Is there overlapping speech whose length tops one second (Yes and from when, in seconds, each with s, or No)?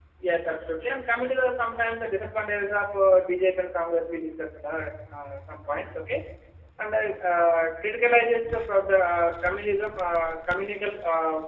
No